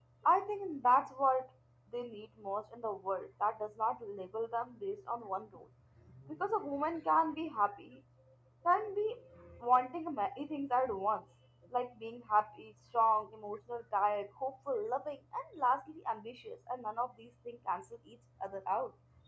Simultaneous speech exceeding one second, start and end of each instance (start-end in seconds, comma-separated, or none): none